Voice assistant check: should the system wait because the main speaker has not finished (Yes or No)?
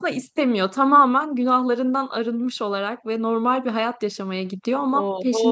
No